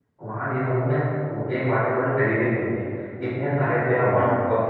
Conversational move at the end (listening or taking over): listening